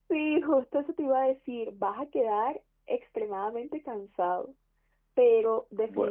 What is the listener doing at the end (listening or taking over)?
listening